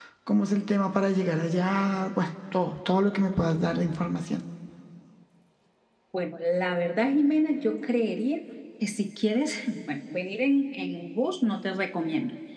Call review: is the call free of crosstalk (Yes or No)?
Yes